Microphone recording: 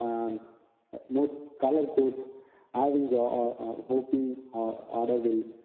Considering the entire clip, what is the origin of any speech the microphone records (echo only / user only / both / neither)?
echo only